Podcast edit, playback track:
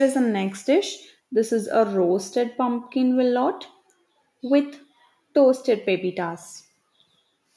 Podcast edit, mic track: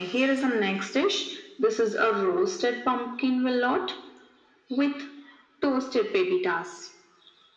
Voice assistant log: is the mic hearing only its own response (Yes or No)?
Yes